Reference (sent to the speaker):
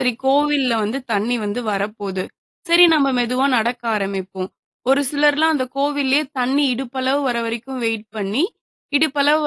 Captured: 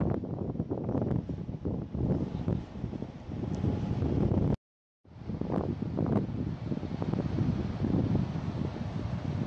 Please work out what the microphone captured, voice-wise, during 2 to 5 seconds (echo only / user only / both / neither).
neither